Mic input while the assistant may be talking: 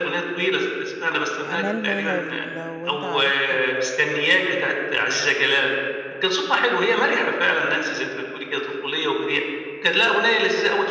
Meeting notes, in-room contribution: present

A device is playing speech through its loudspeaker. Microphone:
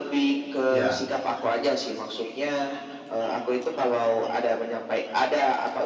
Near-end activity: present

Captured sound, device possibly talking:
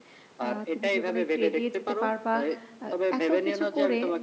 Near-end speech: present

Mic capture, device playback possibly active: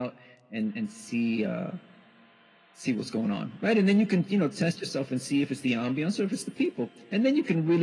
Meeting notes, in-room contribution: none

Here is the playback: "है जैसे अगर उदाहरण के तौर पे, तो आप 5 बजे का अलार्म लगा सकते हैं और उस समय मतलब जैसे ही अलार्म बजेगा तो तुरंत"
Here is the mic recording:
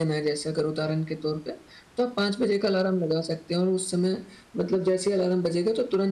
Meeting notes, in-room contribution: none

